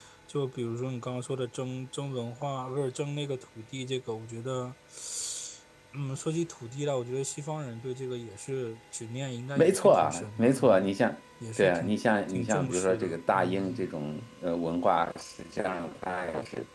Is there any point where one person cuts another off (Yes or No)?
Yes